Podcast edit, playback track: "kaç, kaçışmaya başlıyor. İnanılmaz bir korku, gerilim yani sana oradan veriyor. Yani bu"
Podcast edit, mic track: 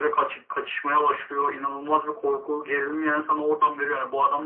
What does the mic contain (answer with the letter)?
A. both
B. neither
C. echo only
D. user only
C